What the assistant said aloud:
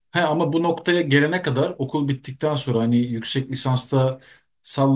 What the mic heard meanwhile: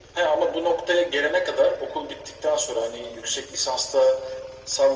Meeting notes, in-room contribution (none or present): none